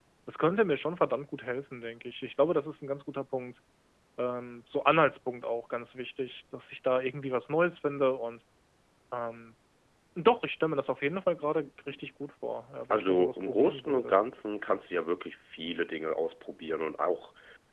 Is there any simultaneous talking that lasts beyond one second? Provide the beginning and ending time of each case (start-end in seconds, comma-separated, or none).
12.9-14.2